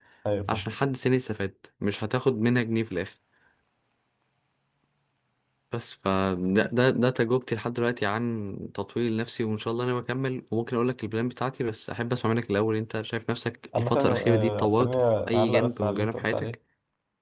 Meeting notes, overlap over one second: present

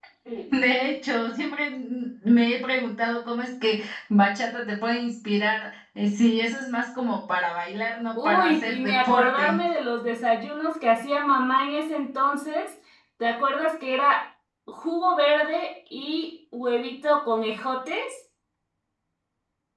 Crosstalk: present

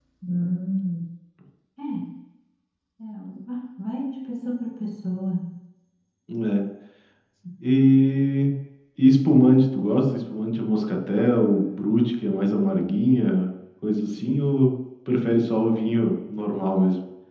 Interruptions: none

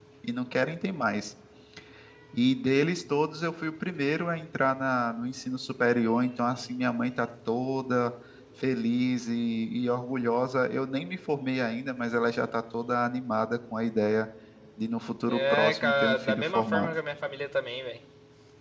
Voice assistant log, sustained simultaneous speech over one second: present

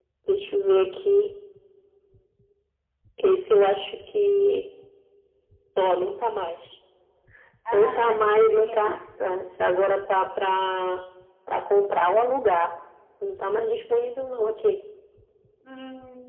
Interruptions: present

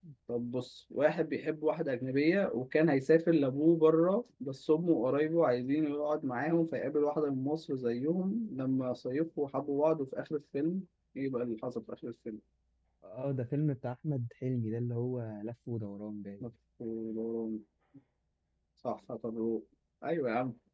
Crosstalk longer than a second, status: none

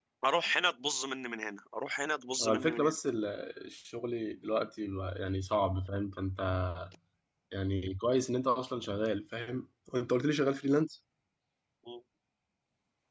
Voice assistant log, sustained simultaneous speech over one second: none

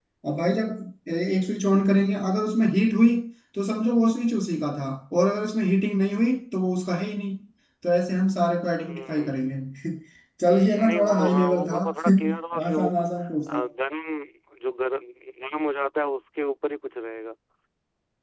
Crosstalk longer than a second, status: present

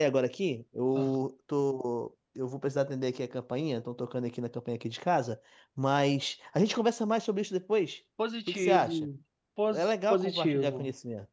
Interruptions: present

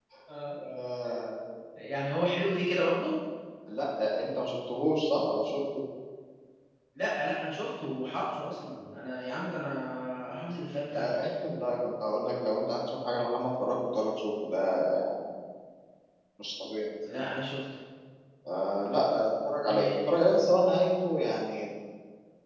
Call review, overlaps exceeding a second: none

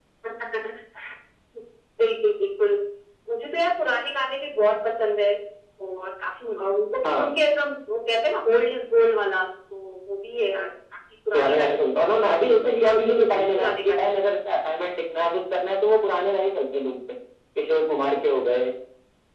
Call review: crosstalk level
present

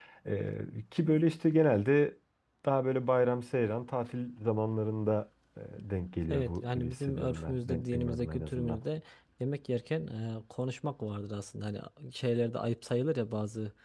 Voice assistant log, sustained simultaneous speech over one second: present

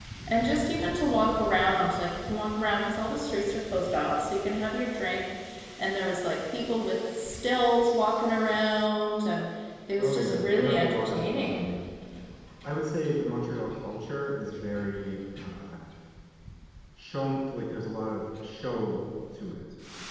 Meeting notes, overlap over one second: present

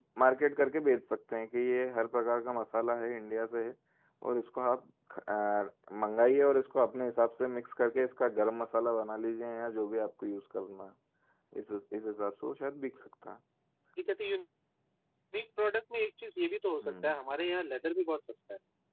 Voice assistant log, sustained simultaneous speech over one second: none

